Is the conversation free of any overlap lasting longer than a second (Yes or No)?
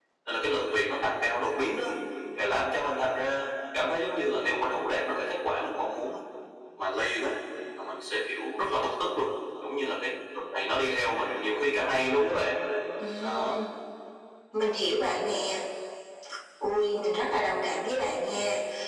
Yes